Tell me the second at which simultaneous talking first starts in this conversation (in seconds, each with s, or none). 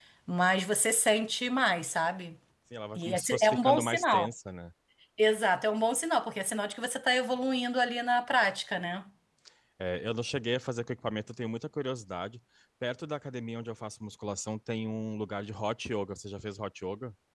3.0 s